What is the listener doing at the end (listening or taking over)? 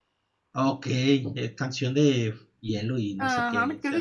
taking over